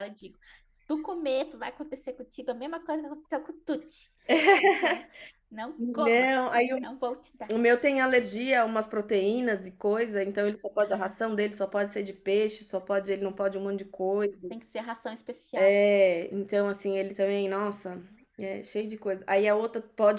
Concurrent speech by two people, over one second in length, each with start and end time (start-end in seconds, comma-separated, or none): none